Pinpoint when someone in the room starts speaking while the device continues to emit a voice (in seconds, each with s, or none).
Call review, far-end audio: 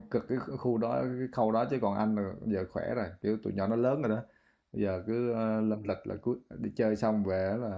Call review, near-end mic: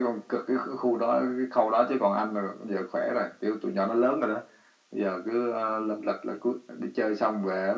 none